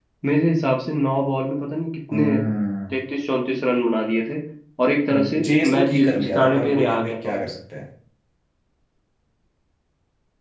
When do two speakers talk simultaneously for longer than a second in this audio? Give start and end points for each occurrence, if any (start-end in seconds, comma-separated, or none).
5.1-7.4